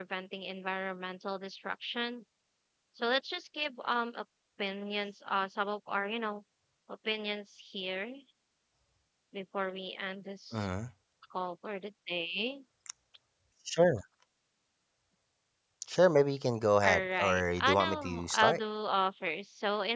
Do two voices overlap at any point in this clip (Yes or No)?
Yes